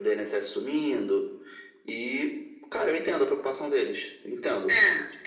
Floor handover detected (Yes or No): Yes